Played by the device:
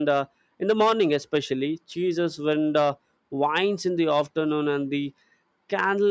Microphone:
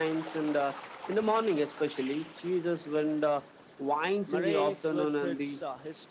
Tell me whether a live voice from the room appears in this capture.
Yes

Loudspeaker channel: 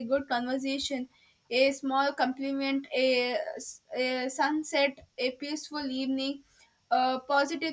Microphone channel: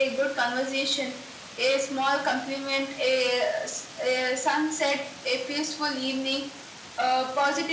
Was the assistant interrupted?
No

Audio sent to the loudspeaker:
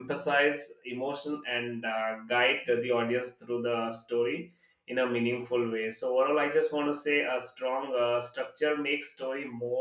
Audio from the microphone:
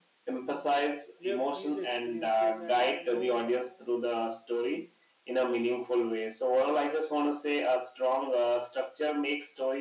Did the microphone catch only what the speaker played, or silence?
No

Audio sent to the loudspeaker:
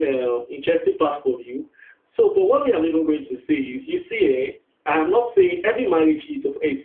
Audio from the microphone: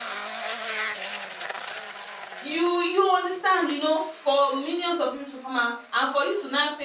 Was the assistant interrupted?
Yes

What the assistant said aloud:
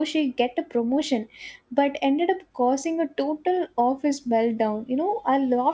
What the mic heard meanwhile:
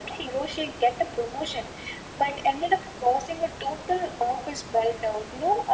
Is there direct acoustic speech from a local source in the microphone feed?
No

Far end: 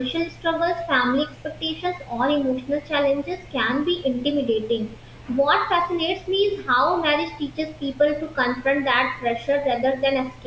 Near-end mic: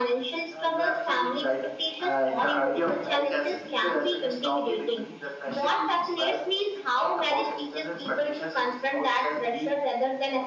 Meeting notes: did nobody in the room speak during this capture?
No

